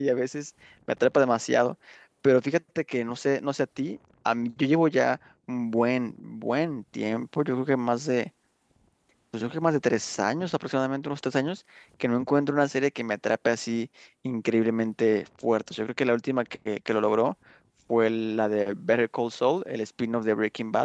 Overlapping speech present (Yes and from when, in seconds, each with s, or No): No